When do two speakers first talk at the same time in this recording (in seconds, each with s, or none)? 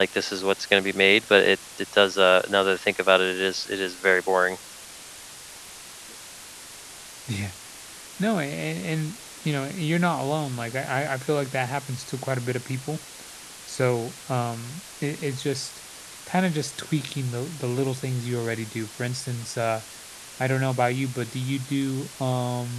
none